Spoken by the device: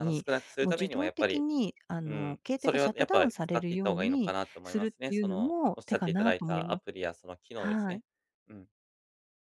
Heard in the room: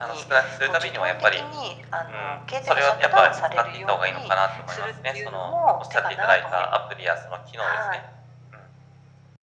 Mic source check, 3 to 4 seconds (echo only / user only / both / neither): echo only